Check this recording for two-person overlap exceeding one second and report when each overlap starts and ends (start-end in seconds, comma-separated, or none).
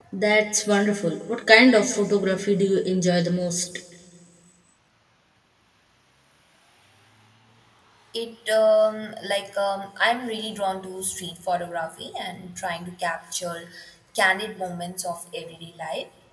none